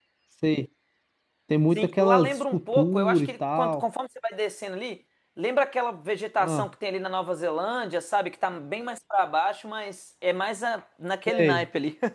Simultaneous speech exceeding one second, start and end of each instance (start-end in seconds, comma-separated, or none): 1.8-3.8